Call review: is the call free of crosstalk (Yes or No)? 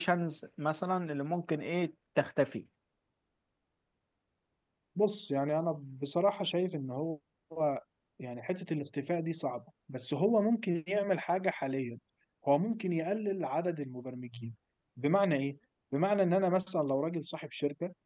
Yes